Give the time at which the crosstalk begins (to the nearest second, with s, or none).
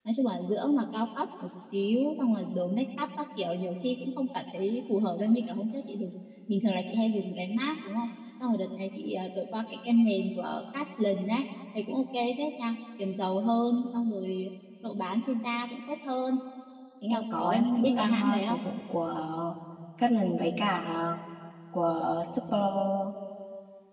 17 s